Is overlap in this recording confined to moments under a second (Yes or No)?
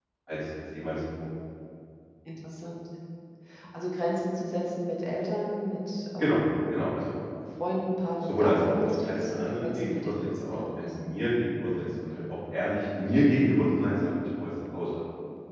No